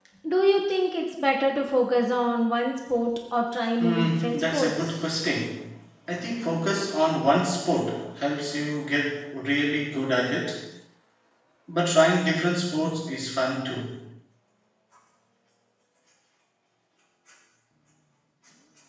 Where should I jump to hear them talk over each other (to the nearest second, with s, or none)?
4 s